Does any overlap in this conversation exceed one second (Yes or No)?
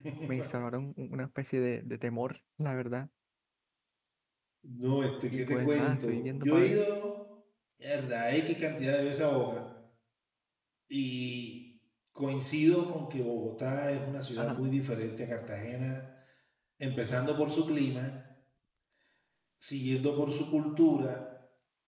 Yes